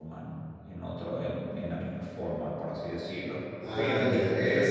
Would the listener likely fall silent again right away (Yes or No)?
No